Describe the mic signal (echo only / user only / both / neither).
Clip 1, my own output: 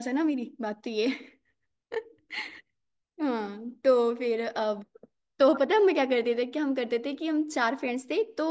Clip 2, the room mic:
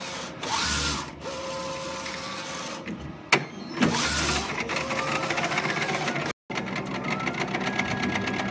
neither